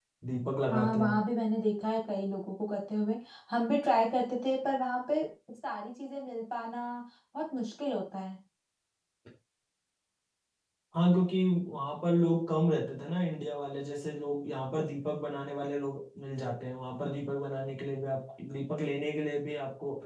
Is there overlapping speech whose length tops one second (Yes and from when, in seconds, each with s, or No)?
No